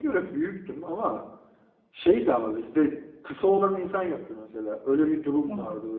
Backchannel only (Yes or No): Yes